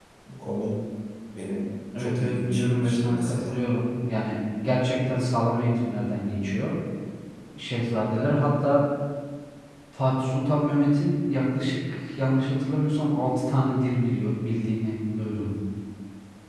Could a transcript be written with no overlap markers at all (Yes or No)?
No